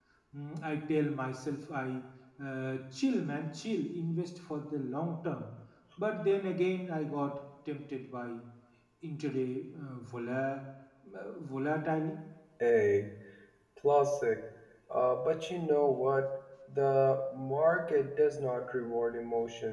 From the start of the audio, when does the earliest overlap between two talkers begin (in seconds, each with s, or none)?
none